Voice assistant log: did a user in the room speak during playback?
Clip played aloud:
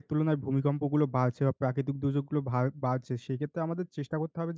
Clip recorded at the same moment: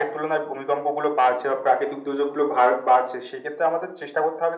No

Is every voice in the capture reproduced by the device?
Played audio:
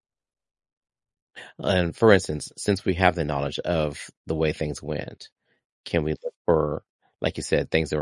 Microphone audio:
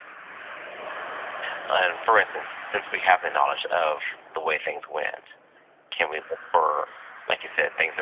Yes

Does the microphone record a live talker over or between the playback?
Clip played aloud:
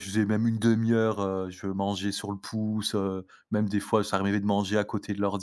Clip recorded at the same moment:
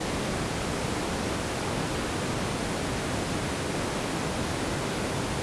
No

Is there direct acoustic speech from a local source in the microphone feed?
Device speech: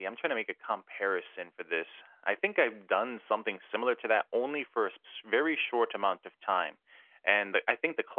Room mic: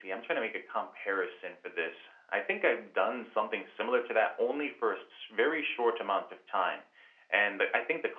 No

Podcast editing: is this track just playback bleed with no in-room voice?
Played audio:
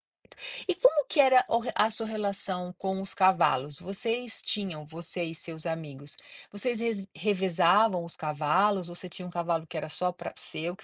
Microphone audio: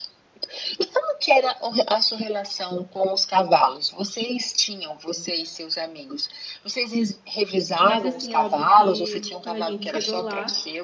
No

